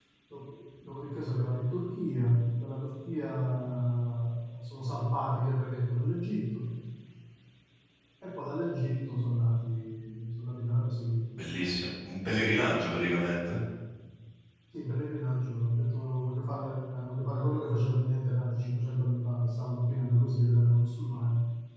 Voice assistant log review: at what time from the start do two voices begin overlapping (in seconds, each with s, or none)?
none